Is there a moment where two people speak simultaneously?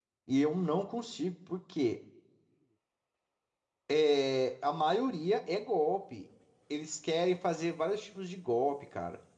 No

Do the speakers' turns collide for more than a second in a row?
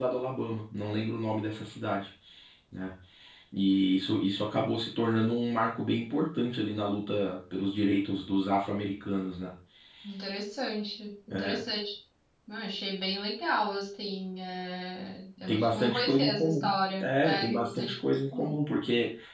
Yes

